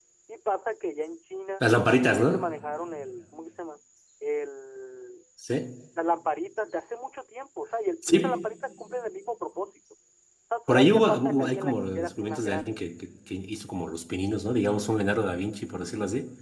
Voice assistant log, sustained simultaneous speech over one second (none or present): present